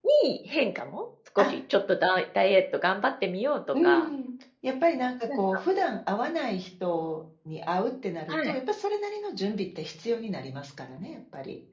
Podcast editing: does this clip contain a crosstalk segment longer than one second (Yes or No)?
No